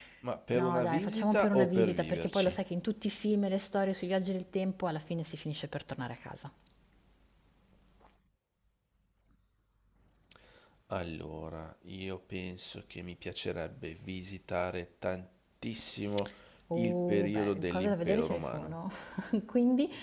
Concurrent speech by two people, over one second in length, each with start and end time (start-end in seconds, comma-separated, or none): 0.5-2.6, 16.7-18.8